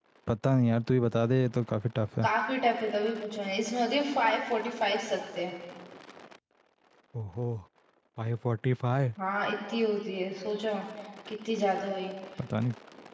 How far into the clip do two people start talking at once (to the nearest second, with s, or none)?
none